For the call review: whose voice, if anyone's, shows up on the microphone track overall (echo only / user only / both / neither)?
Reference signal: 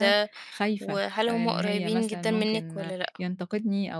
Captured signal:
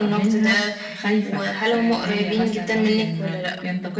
echo only